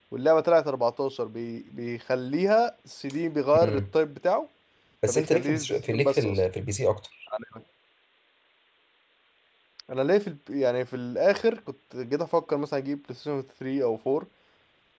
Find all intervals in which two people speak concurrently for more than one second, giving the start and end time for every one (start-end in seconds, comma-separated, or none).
5.1-6.4